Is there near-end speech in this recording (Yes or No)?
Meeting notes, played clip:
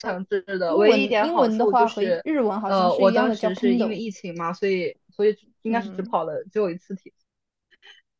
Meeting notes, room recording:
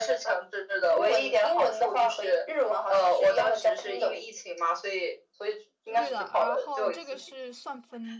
Yes